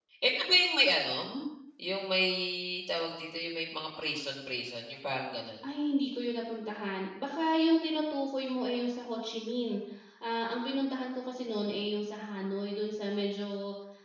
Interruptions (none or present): none